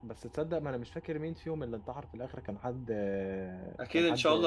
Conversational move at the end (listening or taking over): taking over